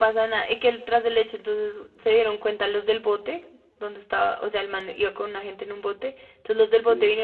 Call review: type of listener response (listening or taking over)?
listening